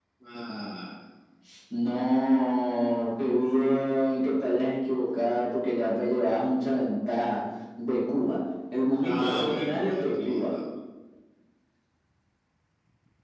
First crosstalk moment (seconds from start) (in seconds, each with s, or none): 9.0 s